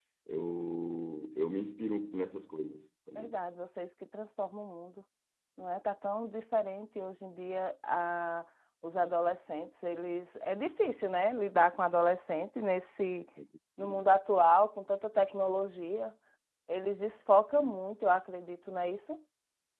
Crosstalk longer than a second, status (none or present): none